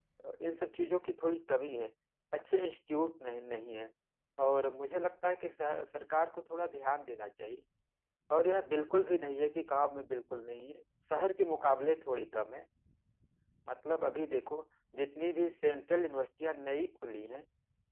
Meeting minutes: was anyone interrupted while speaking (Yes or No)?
No